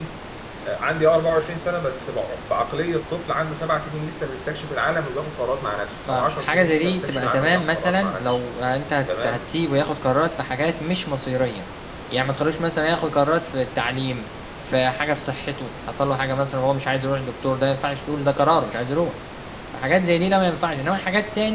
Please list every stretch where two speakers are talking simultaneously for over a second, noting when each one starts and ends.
6.1-8.4

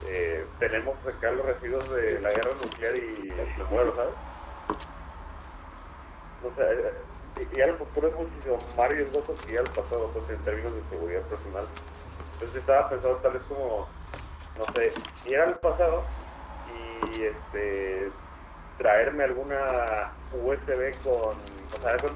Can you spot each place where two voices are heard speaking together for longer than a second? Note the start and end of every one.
2.0-4.0

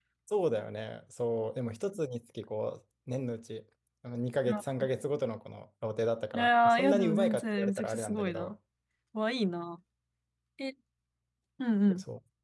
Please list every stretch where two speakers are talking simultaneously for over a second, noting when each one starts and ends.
6.3-8.5

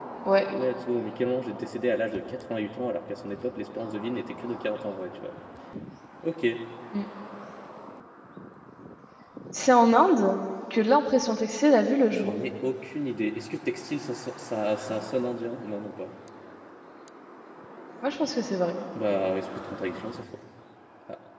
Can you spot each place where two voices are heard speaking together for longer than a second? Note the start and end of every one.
none

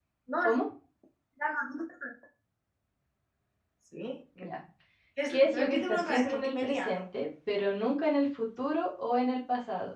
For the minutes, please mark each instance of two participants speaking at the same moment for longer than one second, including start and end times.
5.3-7.0

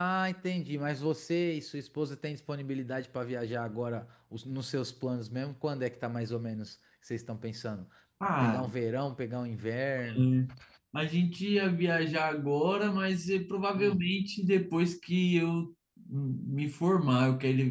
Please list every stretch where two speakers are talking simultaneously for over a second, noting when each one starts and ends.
none

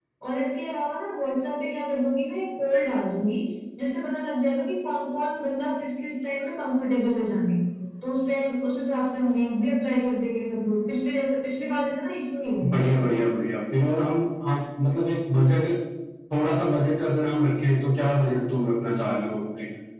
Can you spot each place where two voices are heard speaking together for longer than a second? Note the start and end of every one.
none

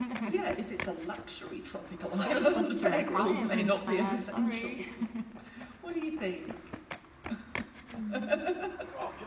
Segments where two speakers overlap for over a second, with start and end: 2.2-4.8

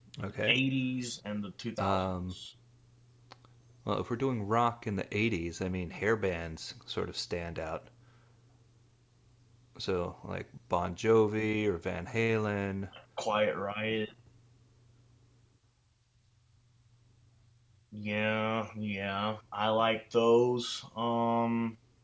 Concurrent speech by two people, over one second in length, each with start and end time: none

